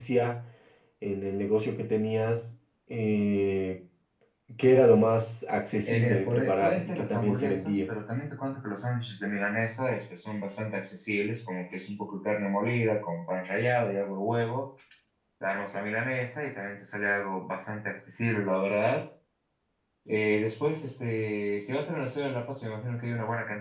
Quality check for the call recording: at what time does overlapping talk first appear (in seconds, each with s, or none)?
5.8 s